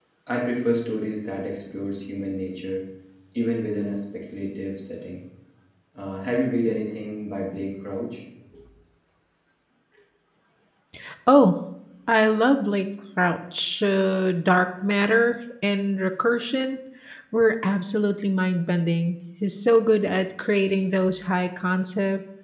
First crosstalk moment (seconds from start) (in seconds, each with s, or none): none